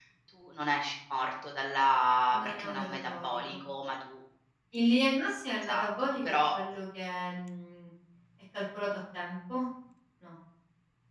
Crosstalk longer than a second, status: present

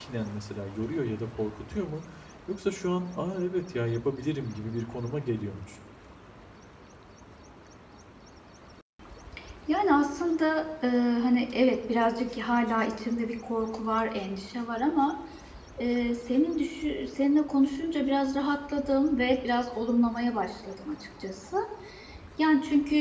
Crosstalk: none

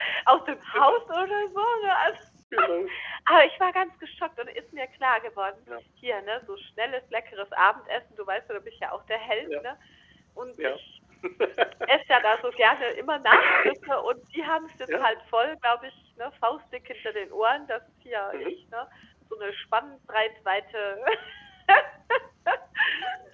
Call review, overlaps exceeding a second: none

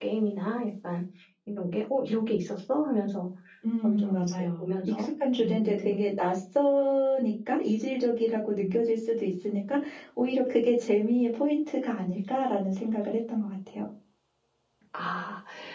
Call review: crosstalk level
present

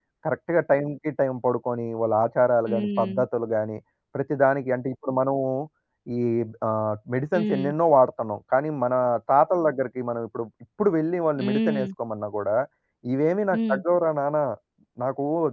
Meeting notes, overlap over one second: none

